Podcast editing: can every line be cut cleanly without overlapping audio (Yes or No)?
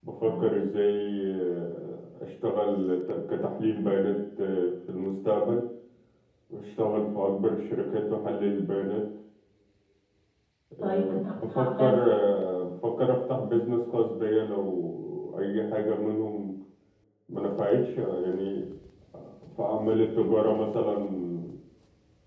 No